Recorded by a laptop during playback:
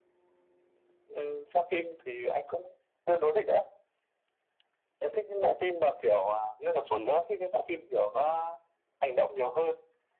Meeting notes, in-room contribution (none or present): none